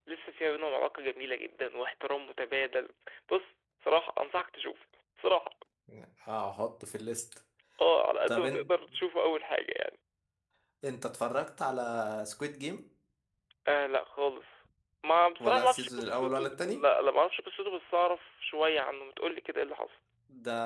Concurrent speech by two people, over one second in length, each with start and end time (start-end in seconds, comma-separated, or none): 15.4-16.8